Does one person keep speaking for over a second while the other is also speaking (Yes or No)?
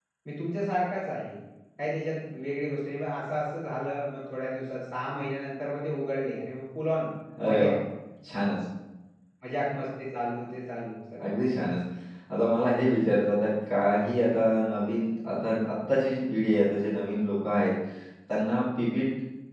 No